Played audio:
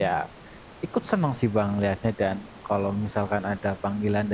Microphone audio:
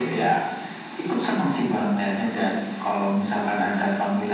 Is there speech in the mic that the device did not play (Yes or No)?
No